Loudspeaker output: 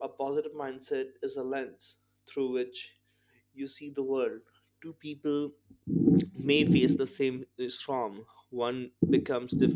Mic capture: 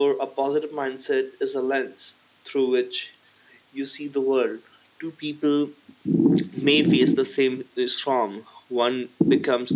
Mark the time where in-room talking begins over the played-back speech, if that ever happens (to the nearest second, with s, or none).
none